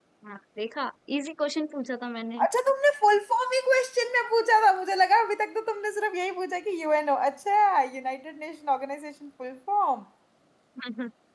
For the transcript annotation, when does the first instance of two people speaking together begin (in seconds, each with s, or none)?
none